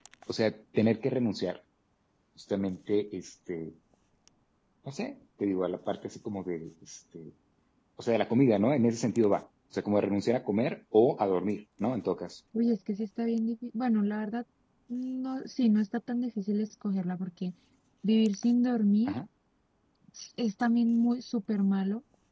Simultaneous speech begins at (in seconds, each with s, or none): none